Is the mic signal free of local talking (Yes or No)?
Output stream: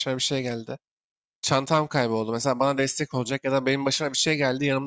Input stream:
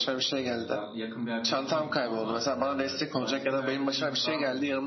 No